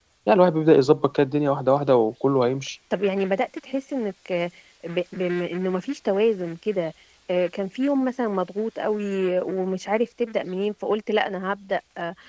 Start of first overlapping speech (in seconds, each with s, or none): none